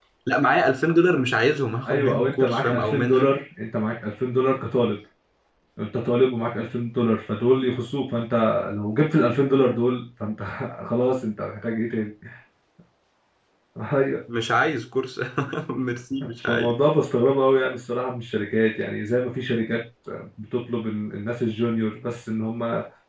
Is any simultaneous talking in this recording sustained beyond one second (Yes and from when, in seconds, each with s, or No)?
Yes, from 1.9 s